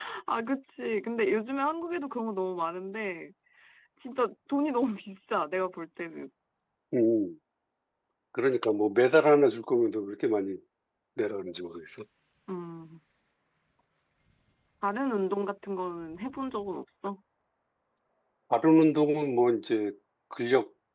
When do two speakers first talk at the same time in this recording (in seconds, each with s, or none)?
none